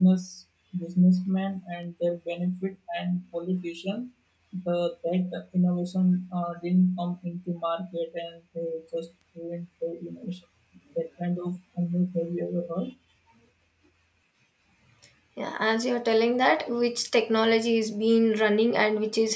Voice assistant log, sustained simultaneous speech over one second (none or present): none